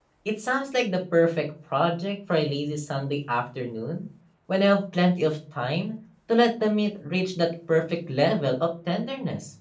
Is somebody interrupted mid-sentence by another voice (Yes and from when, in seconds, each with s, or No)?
No